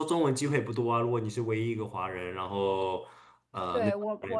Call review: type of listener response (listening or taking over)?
taking over